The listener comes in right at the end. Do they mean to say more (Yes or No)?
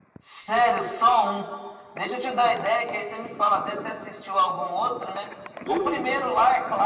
No